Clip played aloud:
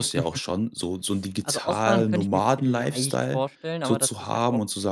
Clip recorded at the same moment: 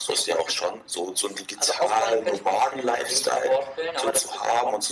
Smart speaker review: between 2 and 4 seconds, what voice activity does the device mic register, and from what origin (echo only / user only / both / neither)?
echo only